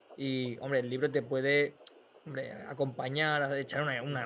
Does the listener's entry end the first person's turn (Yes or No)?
No